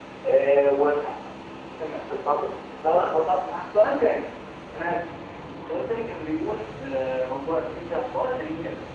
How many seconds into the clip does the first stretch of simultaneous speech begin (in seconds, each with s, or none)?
none